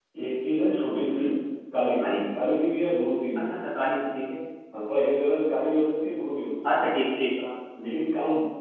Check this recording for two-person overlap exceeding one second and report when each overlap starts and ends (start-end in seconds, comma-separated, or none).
none